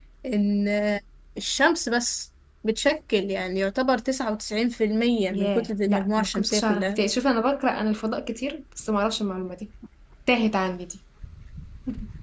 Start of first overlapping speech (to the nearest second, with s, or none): 5 s